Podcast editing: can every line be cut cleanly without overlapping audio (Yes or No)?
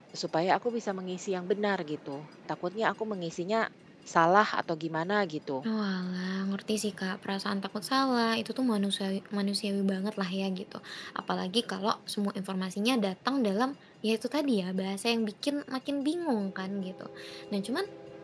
Yes